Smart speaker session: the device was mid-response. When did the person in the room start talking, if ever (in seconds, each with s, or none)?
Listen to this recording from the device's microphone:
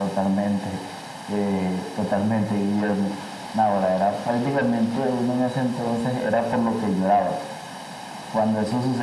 none